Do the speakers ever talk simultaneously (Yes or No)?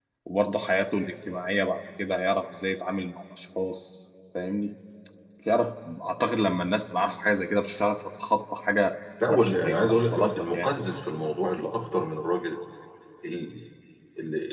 Yes